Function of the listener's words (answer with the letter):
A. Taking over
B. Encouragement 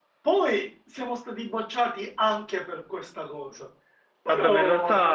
A